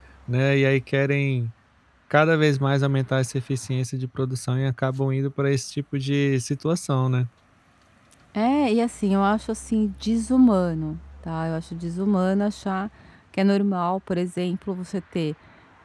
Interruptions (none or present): none